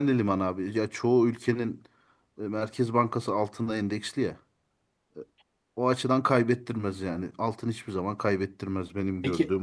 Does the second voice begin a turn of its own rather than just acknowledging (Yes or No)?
Yes